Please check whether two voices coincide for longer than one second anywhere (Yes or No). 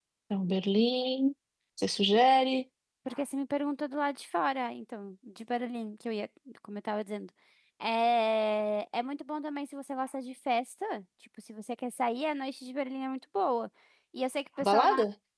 No